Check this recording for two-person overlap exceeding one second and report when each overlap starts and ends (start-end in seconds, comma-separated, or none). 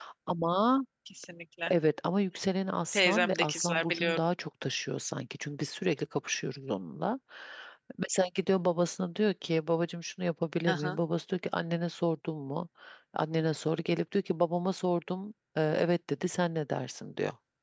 2.9-4.2